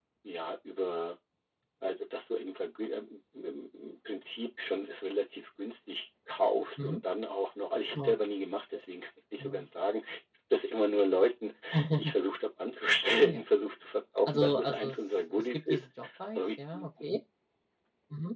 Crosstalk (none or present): present